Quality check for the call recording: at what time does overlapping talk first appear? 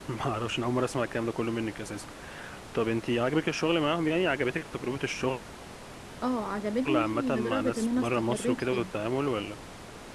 6.9 s

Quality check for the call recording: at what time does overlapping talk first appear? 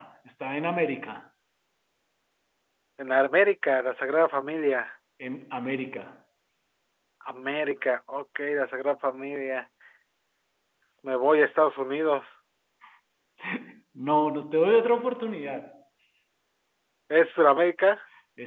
none

